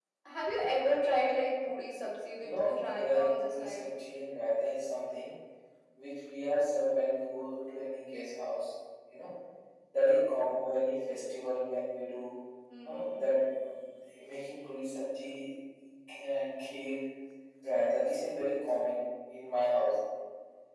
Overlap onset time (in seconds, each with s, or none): 2.4 s